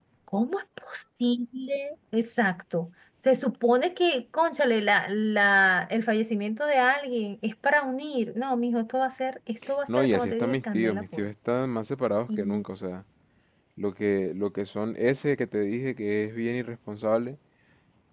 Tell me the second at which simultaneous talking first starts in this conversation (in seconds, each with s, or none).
9.9 s